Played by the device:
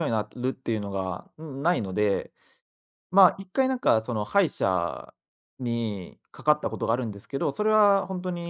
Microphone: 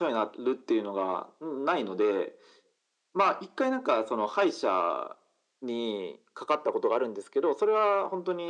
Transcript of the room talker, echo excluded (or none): none